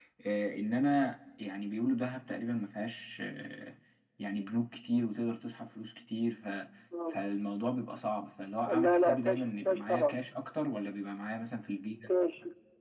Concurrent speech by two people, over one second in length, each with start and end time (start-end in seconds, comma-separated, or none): 8.8-10.2